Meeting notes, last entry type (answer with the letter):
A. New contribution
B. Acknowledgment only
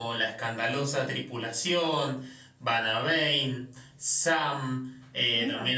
B